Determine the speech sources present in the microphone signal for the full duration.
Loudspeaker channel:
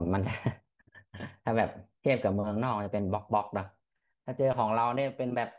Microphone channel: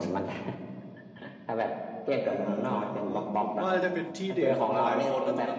both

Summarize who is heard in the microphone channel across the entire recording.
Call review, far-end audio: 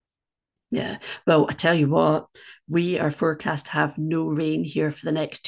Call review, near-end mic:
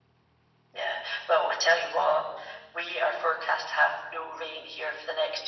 echo only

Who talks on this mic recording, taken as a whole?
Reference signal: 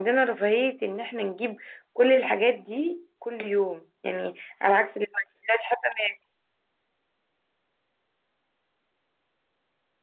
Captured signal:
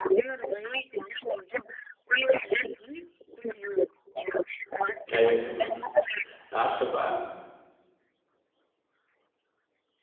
both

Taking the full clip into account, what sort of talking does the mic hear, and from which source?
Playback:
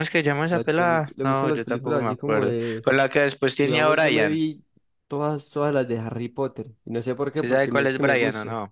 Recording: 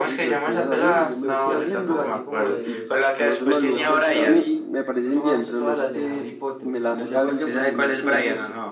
both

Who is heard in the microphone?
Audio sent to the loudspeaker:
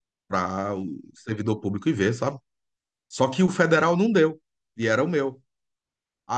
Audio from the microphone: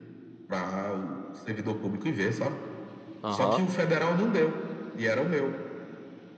both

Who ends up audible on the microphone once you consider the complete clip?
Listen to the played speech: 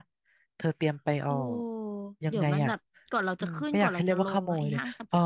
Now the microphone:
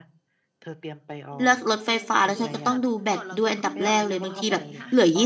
both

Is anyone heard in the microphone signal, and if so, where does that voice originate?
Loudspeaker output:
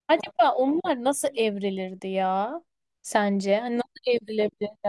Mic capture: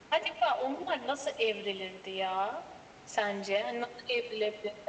echo only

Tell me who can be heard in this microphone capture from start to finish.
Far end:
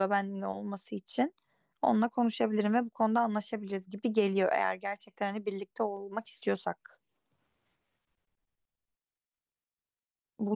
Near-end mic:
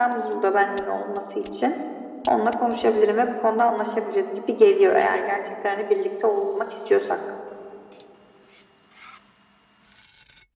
echo only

